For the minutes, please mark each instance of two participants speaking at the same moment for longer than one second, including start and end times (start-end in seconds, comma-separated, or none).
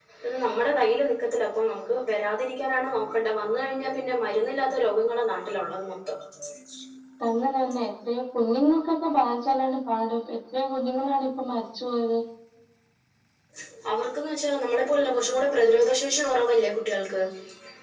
none